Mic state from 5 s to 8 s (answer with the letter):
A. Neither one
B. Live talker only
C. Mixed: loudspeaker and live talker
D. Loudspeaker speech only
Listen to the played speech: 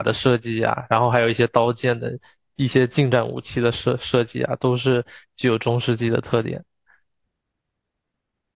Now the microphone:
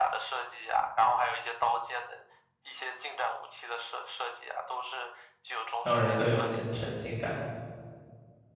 C